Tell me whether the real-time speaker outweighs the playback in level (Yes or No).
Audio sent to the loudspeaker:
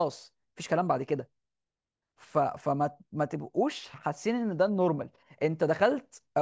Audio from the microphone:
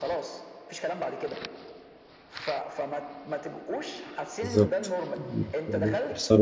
Yes